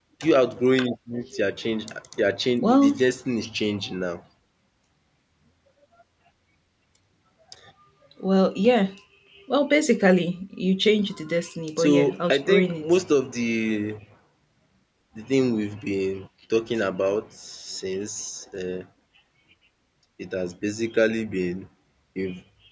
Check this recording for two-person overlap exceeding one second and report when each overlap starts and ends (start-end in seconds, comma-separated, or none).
11.8-13.0